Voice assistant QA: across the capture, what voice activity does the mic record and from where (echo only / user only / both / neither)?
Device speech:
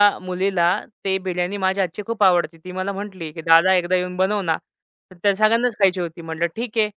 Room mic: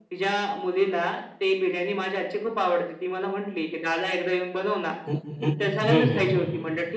both